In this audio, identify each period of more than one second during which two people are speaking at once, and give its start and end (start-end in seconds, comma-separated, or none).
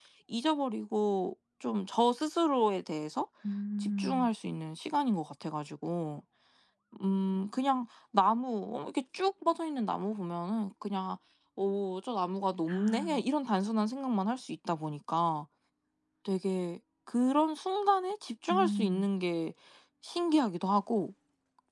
none